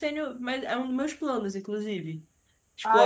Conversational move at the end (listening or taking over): taking over